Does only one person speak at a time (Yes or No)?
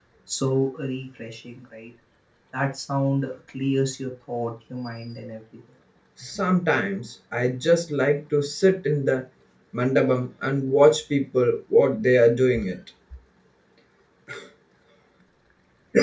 Yes